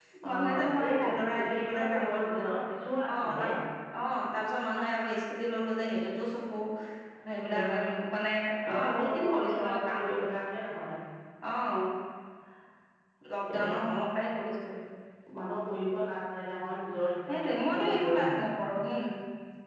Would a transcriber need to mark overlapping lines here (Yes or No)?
Yes